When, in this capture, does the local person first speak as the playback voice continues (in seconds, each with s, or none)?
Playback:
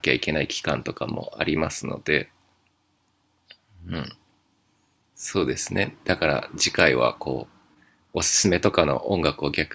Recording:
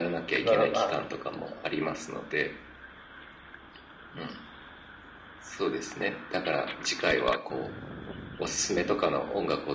0.4 s